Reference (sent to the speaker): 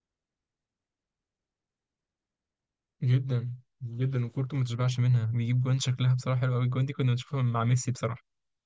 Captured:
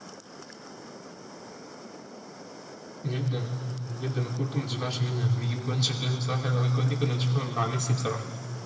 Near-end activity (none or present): none